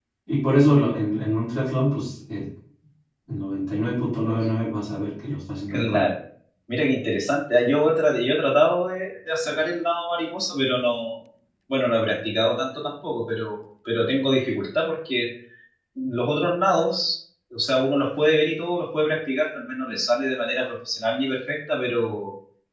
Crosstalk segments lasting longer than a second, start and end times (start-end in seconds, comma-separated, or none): none